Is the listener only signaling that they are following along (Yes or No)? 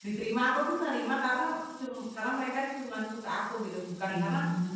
Yes